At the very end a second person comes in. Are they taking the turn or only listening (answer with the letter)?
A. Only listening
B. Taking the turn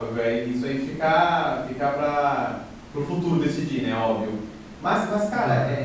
A